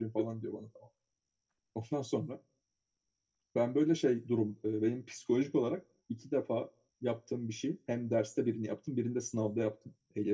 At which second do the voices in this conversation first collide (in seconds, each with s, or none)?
none